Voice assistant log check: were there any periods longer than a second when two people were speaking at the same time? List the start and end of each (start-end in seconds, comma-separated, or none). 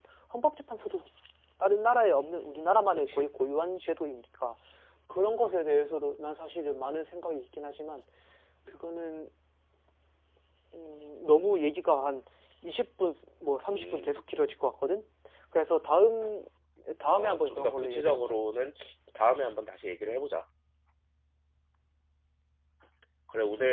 17.1-18.4